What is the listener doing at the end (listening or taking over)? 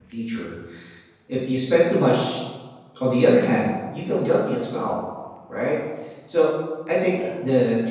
listening